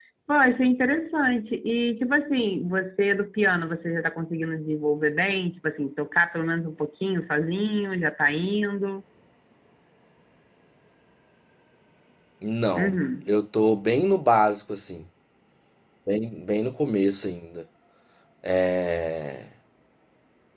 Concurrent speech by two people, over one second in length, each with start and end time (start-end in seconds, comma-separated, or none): none